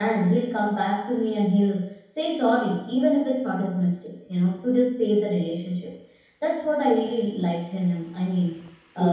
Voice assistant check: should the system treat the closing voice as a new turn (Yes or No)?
No